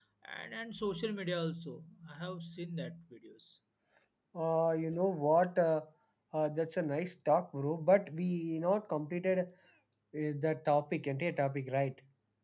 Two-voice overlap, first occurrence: none

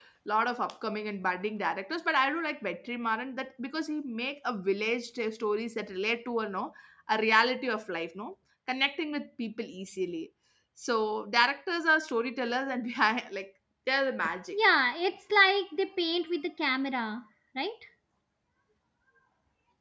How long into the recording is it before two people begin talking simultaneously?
none

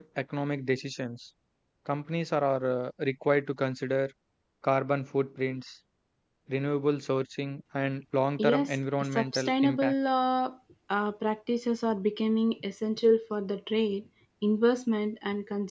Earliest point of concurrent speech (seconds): 8 s

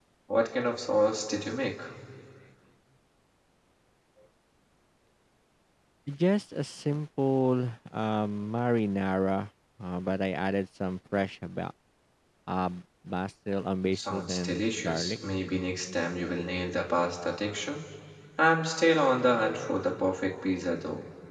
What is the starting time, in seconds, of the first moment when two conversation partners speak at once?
14 s

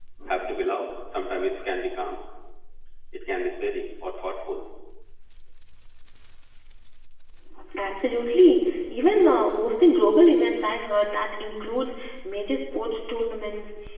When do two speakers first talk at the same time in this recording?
none

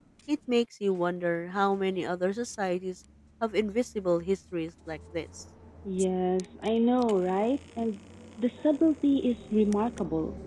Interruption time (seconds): none

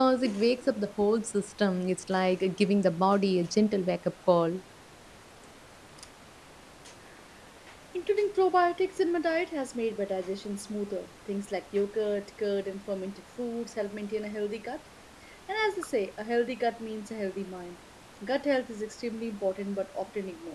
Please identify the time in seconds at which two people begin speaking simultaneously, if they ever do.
none

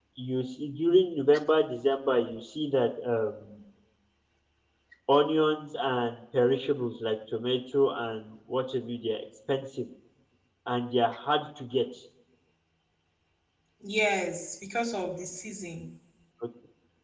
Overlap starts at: none

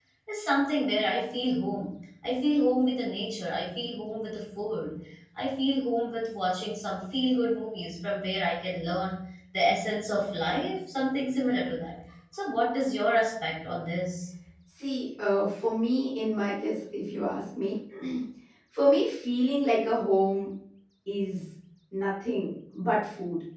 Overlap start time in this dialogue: none

